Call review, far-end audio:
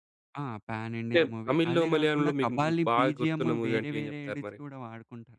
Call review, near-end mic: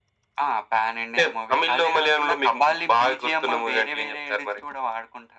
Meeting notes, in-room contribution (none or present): none